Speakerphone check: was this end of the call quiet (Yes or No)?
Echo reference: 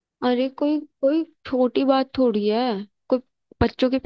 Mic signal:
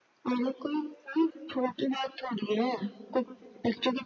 Yes